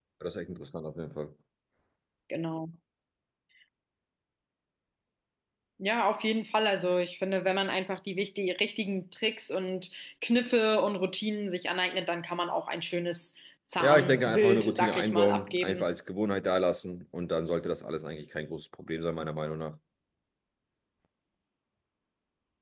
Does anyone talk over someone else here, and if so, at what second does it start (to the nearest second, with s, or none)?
14 s